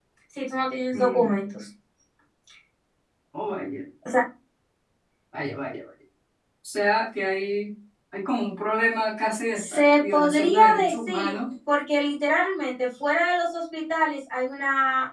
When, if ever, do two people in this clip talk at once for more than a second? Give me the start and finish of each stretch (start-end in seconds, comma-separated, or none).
9.6-11.3